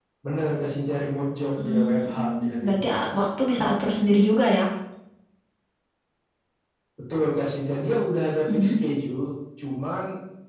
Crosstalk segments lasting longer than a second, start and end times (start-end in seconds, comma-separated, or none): 1.6-2.9